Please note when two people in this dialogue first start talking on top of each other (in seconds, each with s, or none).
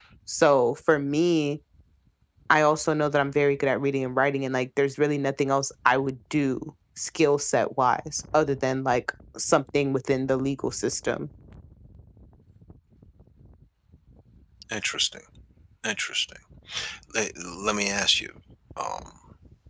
none